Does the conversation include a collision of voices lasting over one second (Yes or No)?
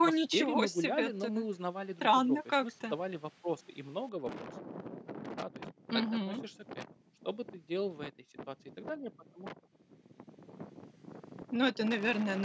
Yes